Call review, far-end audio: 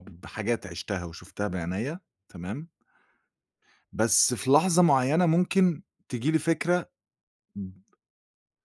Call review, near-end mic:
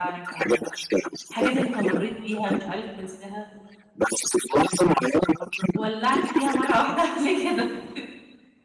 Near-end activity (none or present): present